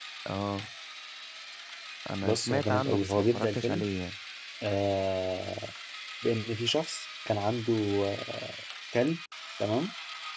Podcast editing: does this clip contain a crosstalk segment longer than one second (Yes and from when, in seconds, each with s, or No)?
Yes, from 2.2 s